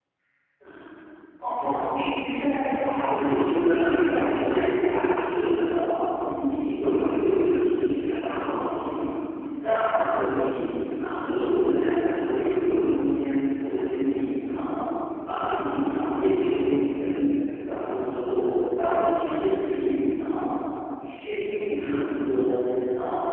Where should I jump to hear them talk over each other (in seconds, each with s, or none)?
3.1 s